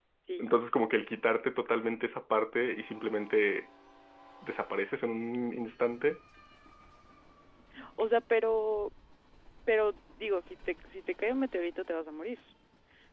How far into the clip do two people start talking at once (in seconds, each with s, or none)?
none